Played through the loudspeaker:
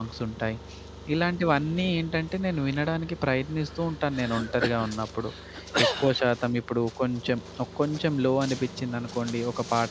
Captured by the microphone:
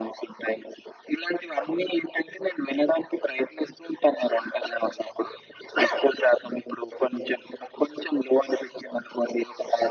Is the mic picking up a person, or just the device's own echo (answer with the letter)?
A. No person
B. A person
A